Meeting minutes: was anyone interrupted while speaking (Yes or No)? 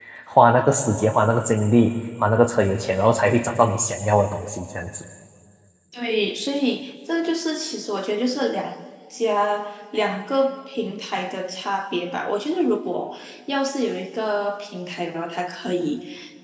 No